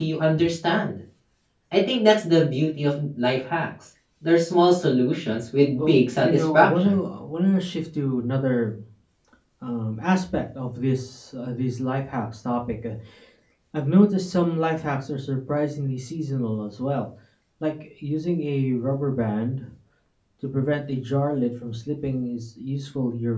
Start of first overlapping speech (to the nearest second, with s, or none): 6 s